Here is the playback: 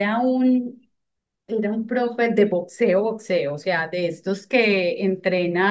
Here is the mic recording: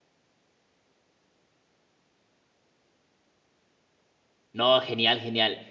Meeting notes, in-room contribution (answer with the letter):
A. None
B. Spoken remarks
B